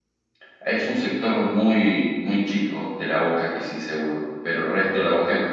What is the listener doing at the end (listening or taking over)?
listening